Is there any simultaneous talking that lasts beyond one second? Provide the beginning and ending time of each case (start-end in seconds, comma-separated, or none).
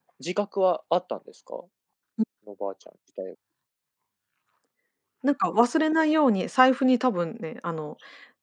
none